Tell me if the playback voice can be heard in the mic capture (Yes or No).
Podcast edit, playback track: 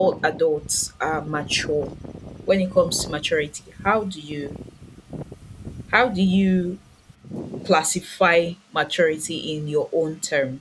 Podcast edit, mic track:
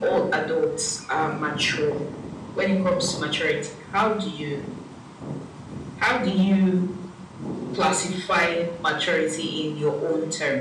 Yes